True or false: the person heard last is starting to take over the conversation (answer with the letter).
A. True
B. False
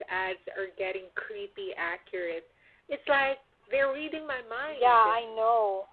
A